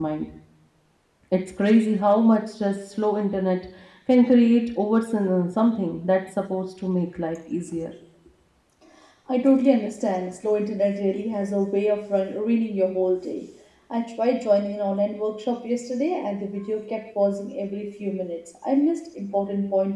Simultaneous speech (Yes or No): No